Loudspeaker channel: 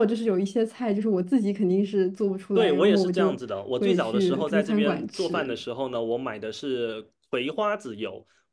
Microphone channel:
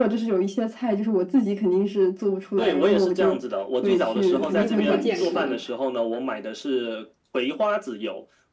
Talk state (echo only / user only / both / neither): both